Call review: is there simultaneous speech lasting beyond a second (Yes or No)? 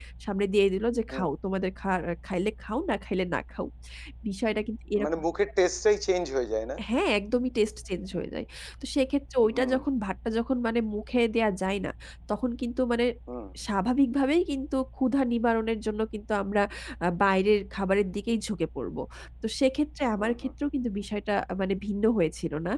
No